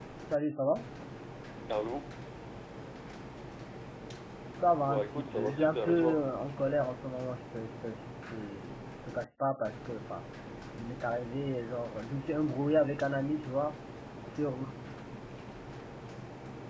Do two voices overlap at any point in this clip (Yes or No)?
Yes